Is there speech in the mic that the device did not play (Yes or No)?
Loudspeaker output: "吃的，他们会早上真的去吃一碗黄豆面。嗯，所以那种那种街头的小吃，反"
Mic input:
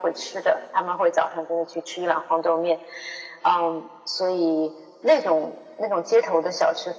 No